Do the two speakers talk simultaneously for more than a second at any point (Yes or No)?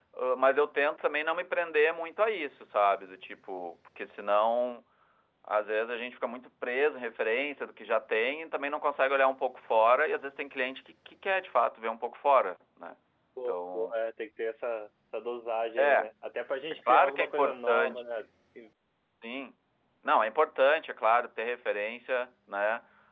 Yes